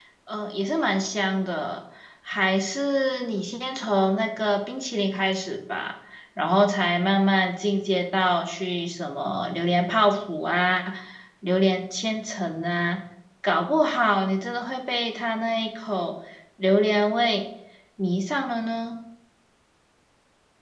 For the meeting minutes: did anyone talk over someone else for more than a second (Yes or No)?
No